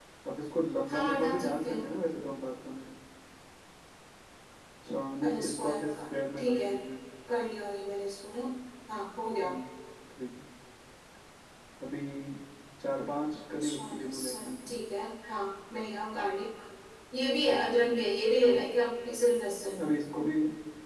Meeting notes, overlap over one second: present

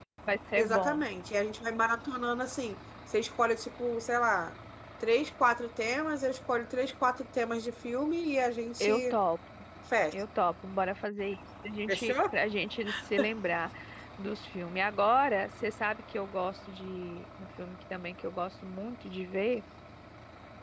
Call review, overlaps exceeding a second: none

